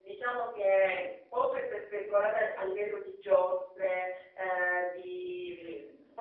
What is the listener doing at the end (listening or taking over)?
listening